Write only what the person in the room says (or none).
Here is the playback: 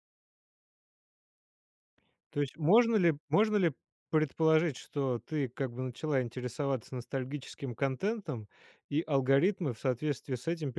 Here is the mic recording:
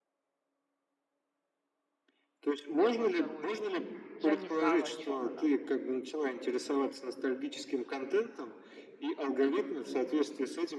первую вторую. Я не знала, о чем она.